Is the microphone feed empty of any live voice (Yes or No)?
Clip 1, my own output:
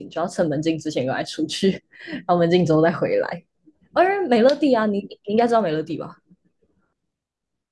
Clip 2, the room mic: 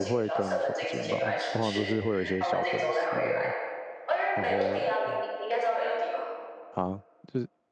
No